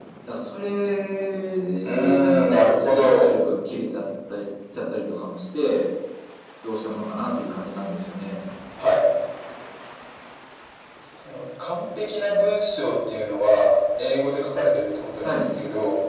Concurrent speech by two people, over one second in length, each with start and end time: 1.8-3.3

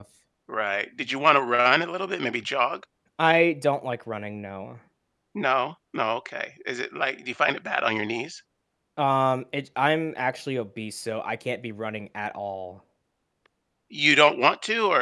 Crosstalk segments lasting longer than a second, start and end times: none

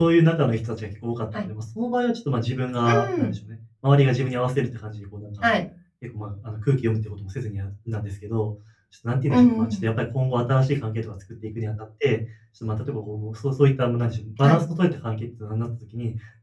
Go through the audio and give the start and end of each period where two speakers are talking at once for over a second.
none

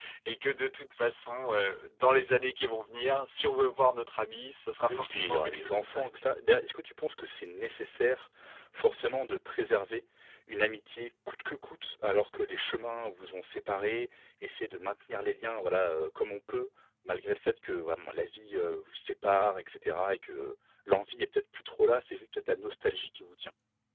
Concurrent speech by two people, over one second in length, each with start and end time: 4.9-6.2

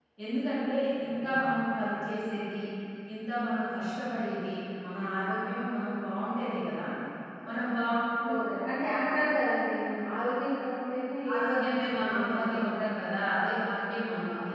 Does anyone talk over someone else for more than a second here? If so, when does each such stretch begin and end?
11.3-12.6

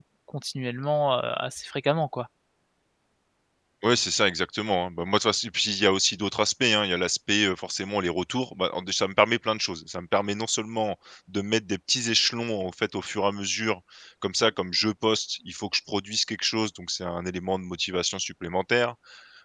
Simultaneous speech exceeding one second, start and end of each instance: none

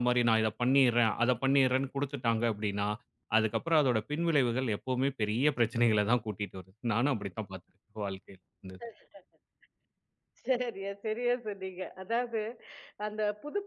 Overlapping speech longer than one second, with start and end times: none

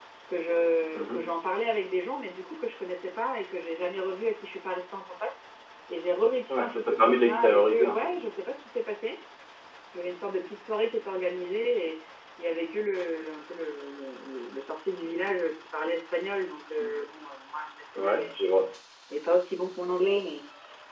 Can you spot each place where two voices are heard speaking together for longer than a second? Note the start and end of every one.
6.5-8.1

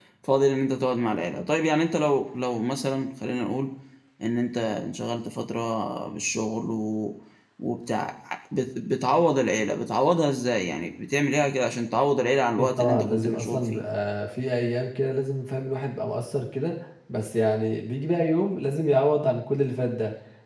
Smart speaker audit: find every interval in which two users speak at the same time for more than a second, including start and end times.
12.6-13.8

